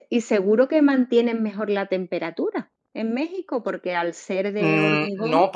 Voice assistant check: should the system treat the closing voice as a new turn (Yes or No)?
Yes